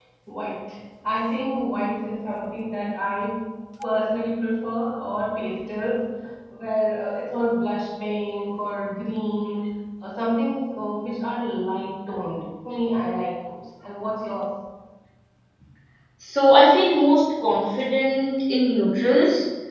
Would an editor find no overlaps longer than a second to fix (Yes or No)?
Yes